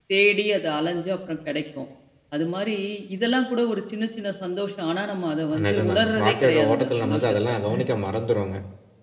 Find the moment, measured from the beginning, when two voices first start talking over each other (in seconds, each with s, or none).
5.5 s